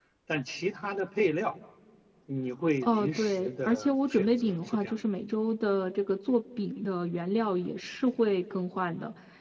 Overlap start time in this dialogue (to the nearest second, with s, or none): 3 s